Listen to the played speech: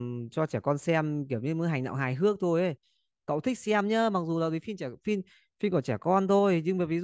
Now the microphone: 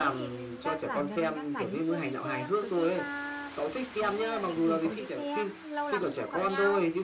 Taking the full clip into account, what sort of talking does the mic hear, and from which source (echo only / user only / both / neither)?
both